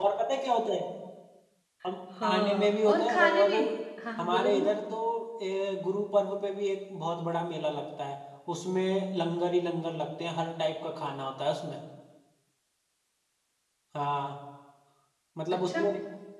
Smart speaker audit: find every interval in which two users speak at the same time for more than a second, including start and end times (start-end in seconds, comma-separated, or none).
2.2-3.5